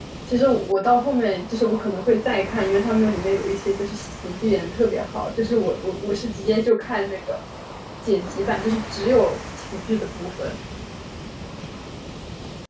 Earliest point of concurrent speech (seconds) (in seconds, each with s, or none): none